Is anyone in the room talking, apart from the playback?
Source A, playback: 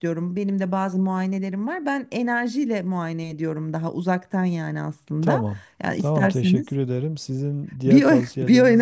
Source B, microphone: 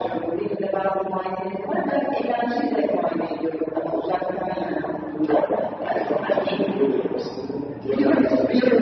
No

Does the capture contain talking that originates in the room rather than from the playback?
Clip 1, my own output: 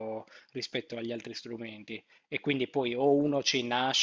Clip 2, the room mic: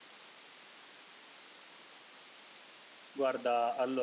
Yes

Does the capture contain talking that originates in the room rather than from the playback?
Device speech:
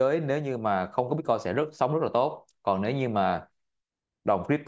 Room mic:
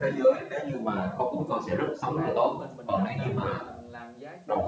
Yes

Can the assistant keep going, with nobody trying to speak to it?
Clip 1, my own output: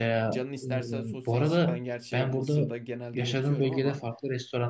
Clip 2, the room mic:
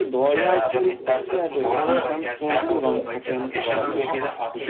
No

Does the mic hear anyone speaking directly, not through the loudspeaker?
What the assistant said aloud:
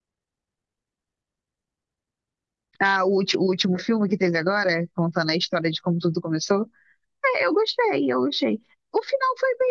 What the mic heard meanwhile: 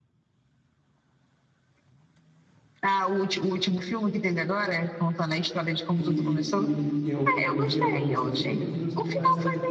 Yes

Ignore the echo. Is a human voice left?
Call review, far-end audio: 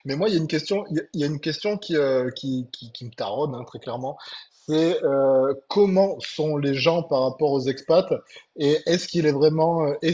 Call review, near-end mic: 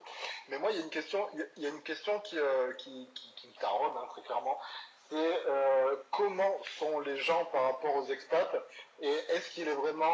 No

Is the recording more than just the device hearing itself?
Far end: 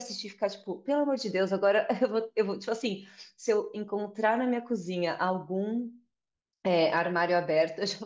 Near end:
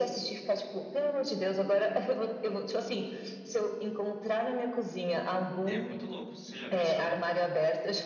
Yes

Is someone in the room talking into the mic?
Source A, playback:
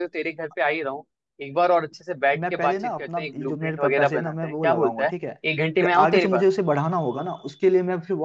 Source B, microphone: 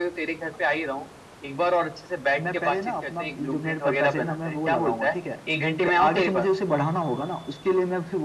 No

